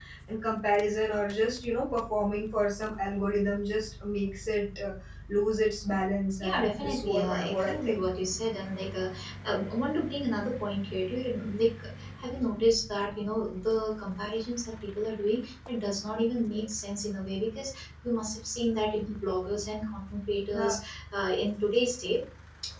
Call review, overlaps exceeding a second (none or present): present